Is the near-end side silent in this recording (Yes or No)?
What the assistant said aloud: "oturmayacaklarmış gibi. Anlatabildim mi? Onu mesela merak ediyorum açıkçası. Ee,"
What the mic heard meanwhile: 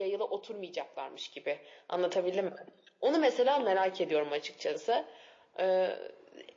Yes